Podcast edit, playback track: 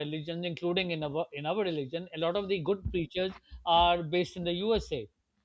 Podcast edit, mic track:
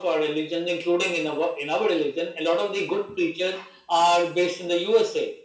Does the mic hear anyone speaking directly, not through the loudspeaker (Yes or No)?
No